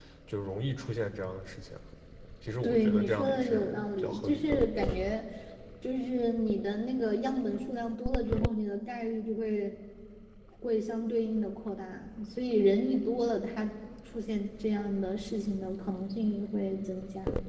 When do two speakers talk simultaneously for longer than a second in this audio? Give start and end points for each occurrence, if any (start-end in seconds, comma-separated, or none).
2.6-4.6